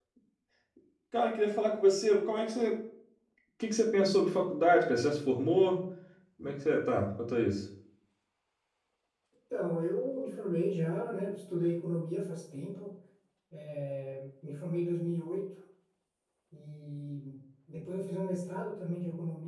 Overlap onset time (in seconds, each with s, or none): none